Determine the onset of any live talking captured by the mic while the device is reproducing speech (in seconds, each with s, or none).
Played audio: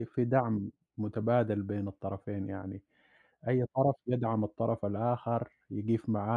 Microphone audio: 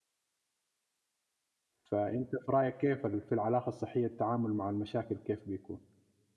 1.8 s